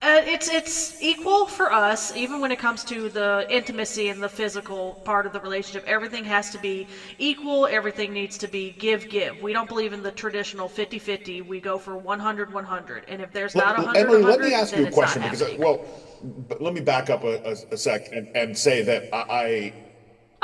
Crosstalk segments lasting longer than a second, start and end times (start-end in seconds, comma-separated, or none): 13.5-15.6